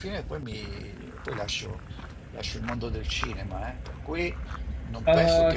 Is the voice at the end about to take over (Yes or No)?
Yes